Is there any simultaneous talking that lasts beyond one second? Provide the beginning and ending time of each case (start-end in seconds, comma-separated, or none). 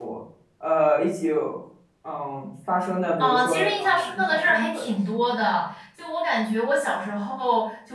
3.2-4.9